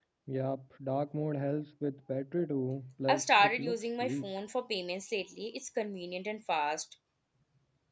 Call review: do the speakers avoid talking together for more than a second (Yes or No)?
No